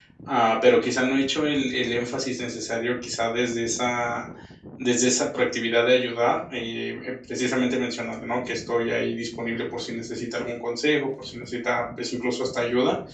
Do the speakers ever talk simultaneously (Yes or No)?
No